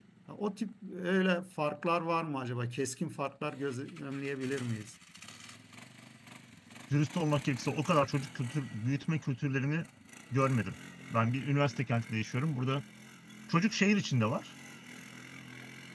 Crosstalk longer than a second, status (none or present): none